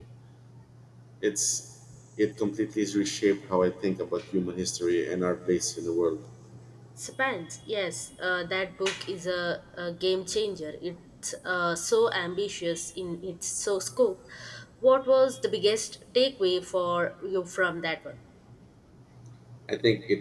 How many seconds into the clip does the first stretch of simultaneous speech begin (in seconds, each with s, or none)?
none